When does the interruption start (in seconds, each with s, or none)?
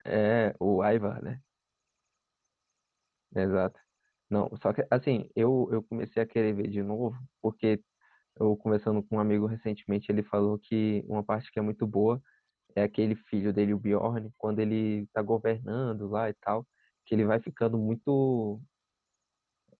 none